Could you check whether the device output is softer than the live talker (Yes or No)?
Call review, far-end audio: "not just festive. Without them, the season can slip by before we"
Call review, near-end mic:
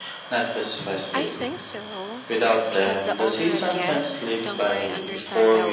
No